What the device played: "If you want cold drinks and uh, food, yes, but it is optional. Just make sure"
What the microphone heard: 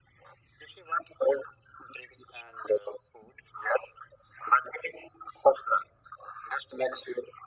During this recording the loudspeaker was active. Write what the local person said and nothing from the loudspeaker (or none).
none